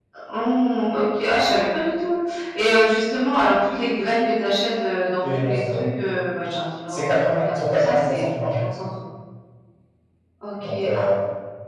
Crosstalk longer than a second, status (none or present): present